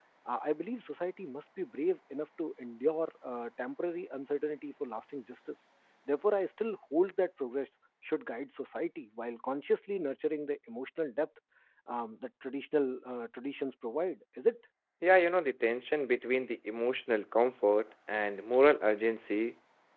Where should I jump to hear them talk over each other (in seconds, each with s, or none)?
none